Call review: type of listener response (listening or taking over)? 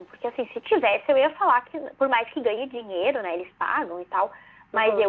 listening